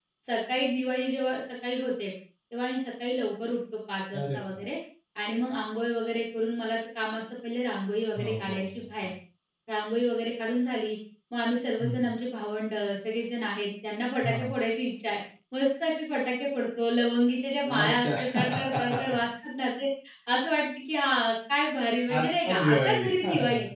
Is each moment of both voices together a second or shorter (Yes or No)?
No